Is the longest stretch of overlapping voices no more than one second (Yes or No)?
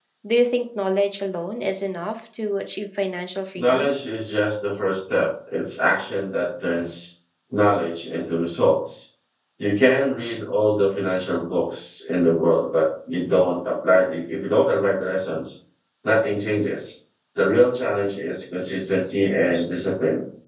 Yes